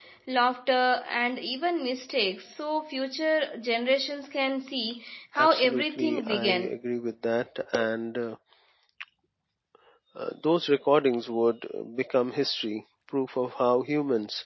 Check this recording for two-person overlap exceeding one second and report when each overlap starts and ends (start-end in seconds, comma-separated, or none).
5.4-6.8